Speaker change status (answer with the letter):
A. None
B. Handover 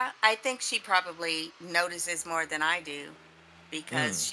A